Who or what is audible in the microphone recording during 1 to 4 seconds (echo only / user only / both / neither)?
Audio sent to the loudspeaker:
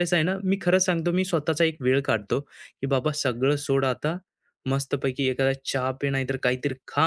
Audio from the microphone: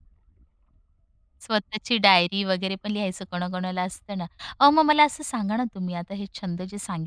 user only